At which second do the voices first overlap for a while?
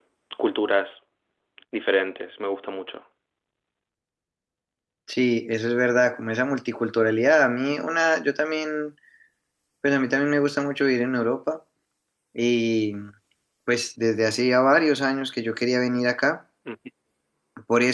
none

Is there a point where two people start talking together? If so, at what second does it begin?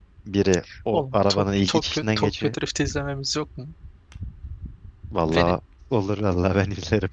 1 s

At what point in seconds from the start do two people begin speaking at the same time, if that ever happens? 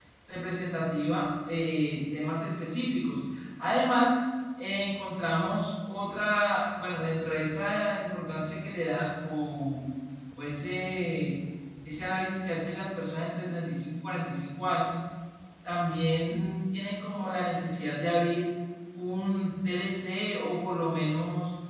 none

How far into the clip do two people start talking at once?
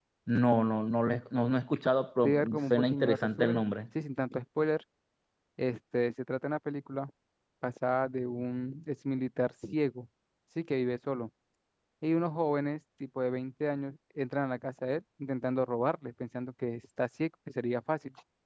2 s

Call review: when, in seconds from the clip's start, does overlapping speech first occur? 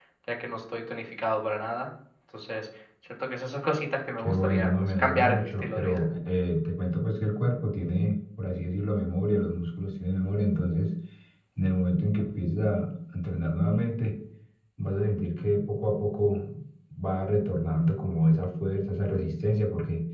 4 s

